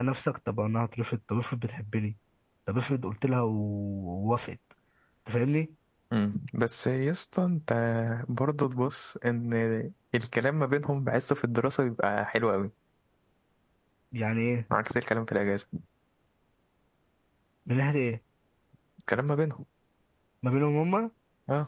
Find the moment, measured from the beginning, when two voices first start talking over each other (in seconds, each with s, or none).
none